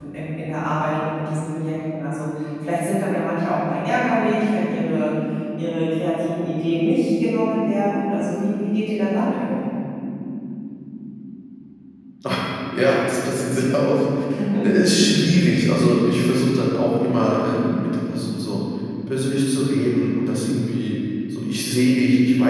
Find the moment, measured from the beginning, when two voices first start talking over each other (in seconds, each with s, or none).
none